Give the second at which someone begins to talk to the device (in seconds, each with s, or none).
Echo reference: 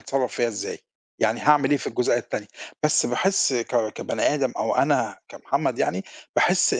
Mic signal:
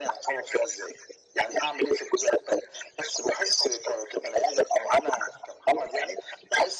none